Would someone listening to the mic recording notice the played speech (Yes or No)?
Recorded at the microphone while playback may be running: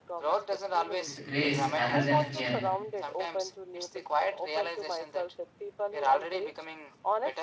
Yes